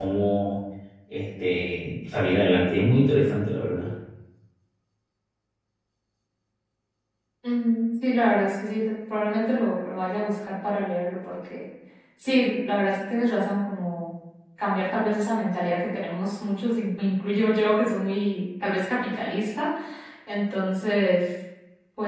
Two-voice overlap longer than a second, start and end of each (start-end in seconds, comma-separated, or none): none